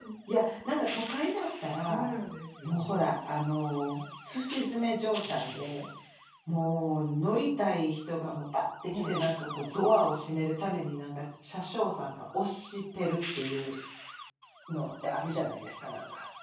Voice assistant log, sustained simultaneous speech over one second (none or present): none